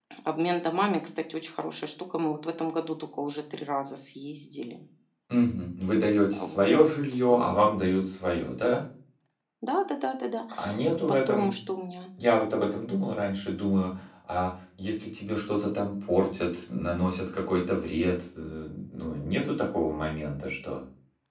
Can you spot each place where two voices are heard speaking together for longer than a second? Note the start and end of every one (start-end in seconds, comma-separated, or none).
none